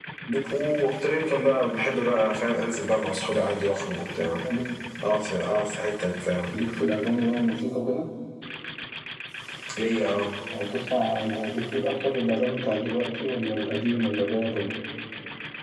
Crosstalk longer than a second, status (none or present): none